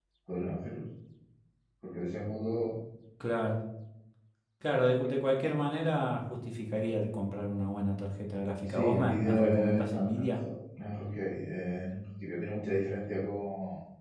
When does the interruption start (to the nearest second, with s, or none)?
9 s